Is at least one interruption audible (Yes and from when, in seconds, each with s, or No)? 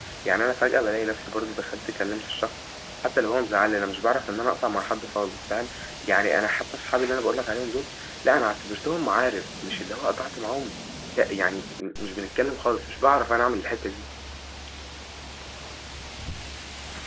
No